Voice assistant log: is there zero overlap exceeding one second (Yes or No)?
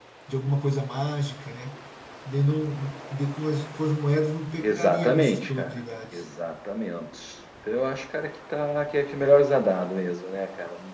No